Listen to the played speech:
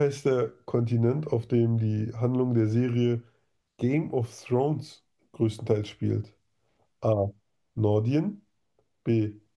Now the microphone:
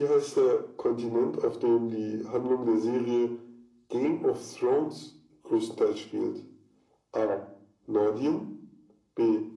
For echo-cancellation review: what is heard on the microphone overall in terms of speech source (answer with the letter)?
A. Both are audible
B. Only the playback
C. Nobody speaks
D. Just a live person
B